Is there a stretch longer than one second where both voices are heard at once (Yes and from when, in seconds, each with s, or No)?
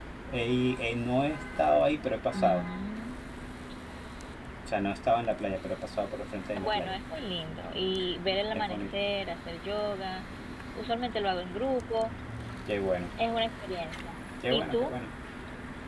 No